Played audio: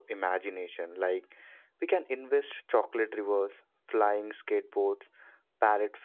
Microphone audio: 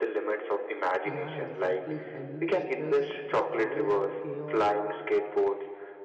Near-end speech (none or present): present